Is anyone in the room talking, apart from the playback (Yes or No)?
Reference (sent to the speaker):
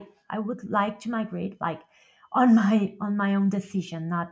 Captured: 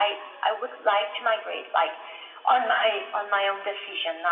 No